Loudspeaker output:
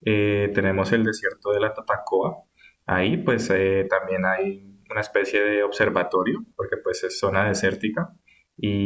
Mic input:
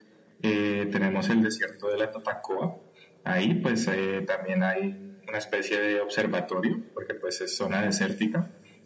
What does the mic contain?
echo only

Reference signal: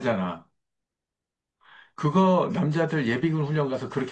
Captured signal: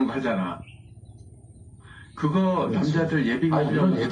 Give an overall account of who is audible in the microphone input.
both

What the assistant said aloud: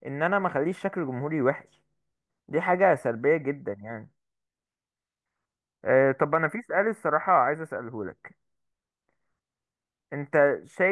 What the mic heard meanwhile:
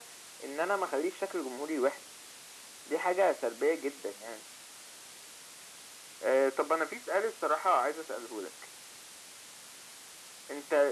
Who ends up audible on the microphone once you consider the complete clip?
echo only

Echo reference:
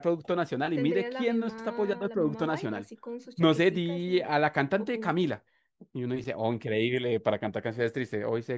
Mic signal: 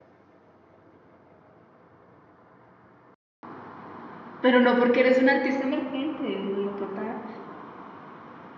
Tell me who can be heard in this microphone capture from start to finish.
user only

